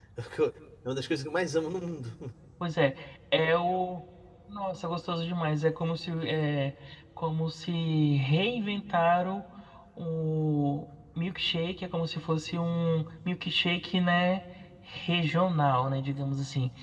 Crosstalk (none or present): none